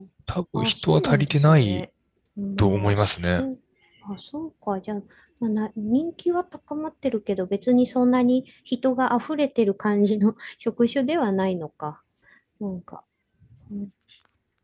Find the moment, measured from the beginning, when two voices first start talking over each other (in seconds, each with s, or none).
0.6 s